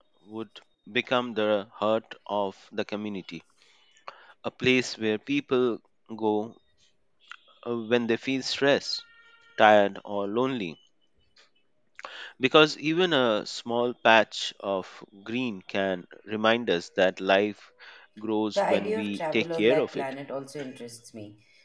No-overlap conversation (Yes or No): No